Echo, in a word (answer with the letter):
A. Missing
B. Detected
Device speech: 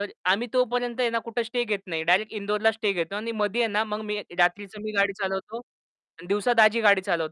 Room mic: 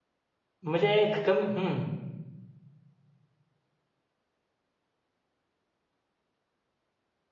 A